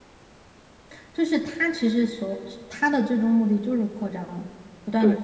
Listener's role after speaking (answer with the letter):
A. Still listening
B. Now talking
B